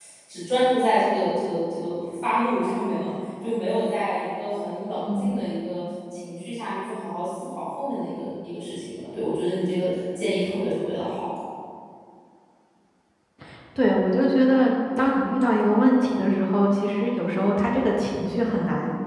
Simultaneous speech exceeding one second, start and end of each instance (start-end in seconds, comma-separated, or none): none